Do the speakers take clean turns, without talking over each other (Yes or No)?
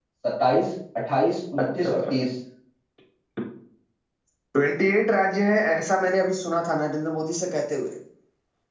Yes